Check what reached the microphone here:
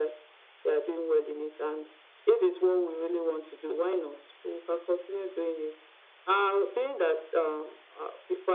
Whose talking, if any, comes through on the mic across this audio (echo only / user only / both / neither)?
echo only